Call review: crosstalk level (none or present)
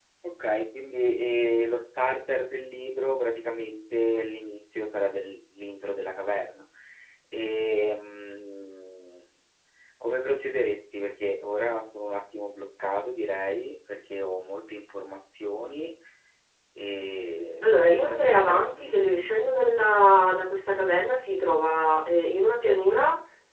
present